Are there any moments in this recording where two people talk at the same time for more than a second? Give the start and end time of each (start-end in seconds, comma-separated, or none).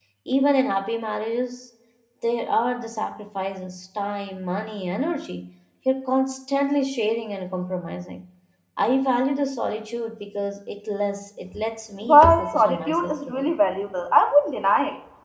12.0-13.5